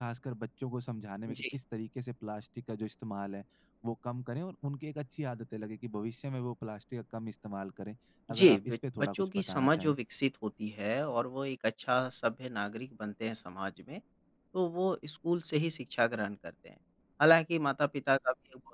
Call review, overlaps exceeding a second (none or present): present